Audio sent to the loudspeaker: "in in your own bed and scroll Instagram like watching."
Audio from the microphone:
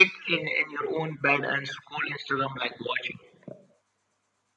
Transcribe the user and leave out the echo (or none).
none